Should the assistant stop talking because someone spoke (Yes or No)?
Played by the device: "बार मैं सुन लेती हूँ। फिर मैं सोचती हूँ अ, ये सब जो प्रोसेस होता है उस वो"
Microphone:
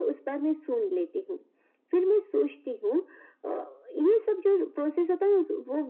No